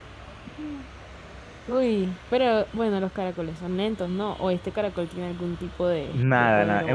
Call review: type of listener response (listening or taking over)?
taking over